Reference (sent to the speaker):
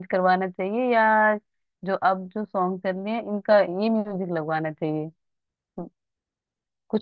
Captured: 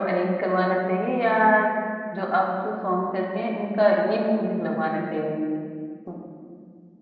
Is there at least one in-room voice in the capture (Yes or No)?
No